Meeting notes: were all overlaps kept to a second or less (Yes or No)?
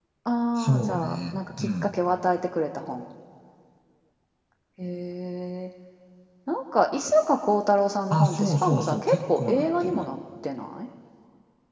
No